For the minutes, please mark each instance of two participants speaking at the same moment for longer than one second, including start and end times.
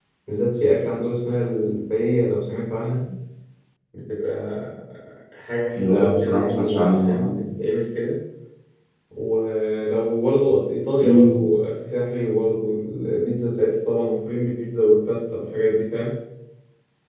5.8-7.4

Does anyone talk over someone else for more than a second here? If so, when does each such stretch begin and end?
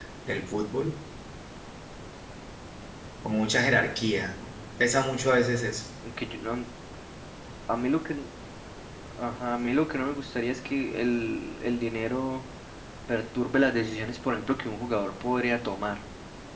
none

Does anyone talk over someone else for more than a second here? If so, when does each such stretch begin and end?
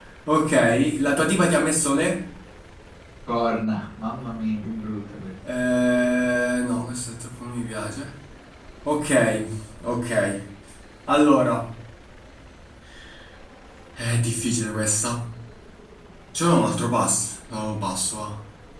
none

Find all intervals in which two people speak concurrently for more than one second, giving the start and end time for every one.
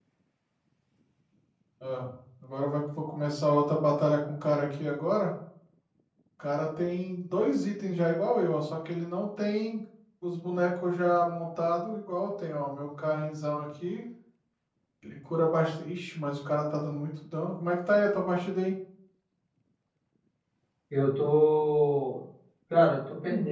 none

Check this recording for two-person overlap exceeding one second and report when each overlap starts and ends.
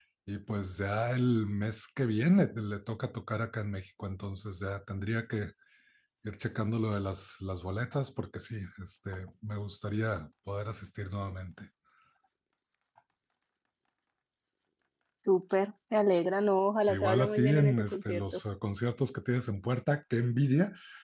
16.9-18.4

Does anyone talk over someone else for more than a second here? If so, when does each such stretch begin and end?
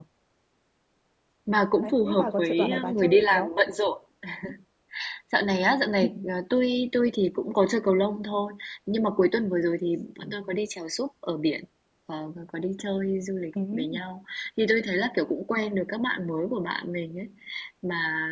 1.8-3.5

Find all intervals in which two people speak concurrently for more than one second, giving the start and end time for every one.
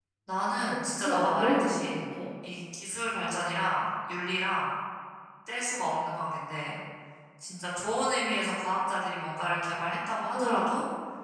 0.6-2.0

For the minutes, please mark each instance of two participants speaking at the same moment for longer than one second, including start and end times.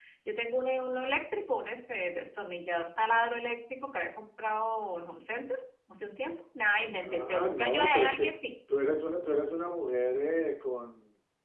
7.0-8.3

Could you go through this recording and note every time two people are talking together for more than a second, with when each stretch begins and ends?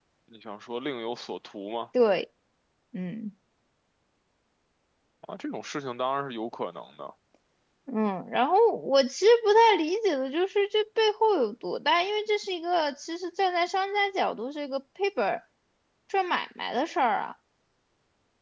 none

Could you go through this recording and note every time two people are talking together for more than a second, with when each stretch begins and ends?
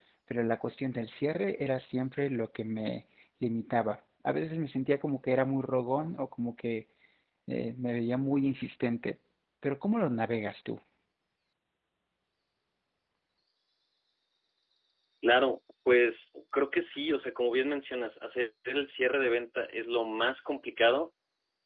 none

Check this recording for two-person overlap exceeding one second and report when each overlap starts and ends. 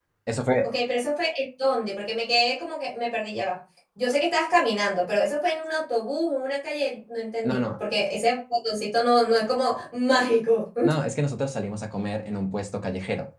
none

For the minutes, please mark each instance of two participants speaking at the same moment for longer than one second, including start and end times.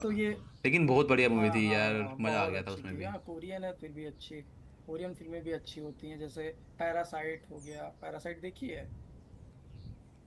1.3-3.1

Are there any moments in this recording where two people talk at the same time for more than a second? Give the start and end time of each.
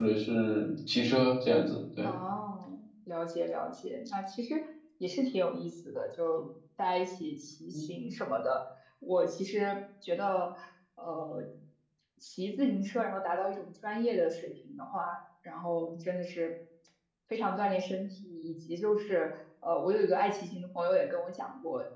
none

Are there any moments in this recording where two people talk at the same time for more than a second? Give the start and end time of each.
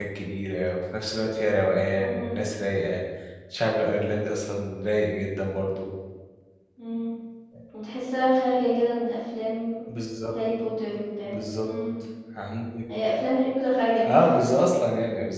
none

